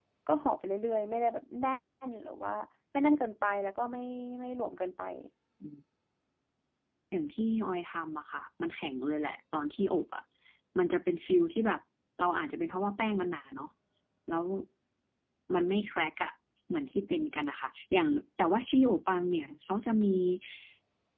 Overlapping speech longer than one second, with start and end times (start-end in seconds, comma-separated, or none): none